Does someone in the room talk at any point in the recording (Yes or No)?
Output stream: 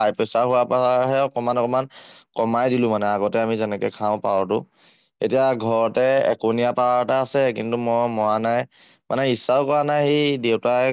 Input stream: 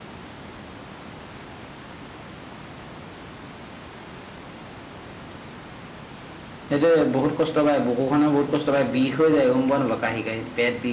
Yes